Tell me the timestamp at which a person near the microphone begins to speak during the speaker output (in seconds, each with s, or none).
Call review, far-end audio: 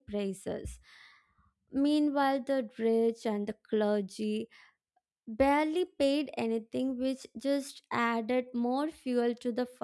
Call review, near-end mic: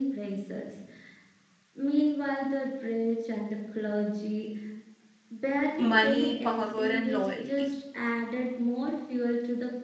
5.8 s